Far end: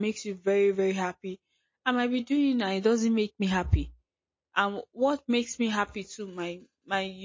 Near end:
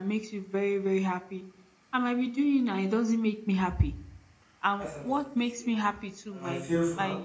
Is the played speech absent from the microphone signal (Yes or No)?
No